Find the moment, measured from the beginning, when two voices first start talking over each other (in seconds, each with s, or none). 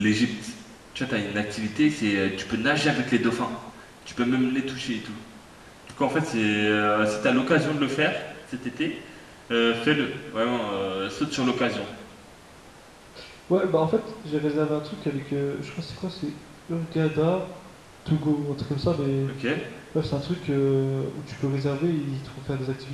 none